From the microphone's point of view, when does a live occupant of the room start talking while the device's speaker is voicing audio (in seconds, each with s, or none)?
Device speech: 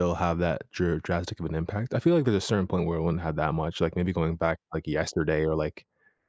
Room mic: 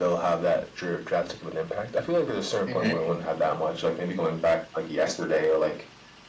2.7 s